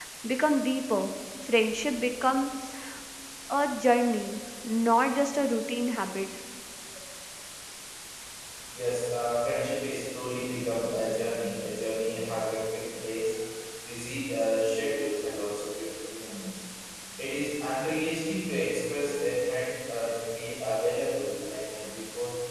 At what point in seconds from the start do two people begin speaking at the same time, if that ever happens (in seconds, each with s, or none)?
none